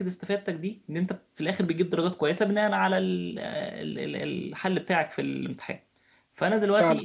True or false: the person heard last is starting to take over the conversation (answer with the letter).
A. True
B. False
B